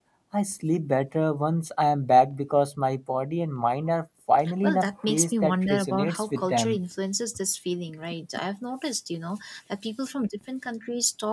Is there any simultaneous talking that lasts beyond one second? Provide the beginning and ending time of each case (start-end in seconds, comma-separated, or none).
4.6-6.8